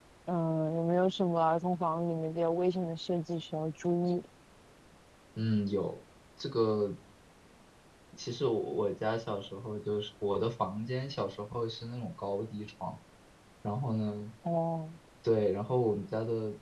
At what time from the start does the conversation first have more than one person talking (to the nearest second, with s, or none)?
none